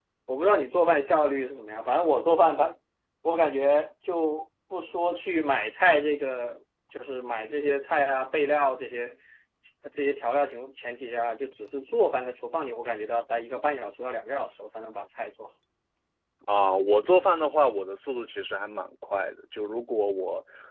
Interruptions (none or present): none